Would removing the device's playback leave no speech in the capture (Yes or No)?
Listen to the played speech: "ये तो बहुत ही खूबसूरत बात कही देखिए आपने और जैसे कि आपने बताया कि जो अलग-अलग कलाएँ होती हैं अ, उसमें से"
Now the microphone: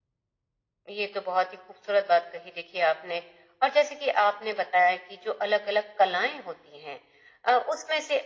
Yes